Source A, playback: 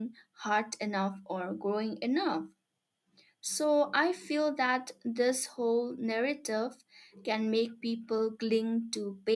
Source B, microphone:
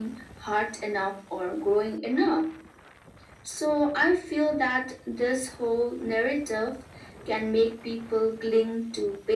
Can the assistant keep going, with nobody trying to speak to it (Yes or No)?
Yes